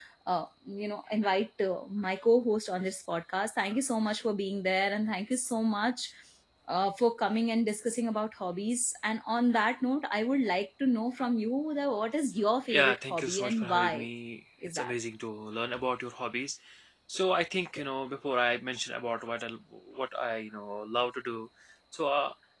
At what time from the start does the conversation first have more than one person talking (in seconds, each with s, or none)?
12.7 s